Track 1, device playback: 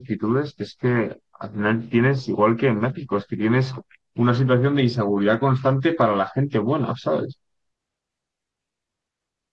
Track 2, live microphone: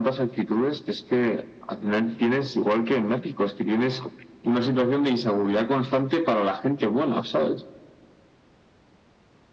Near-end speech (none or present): none